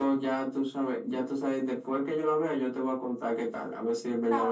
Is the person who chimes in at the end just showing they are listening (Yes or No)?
No